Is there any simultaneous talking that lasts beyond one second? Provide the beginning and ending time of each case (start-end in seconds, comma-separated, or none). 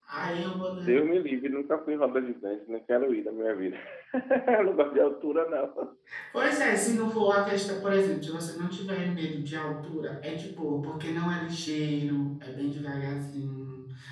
none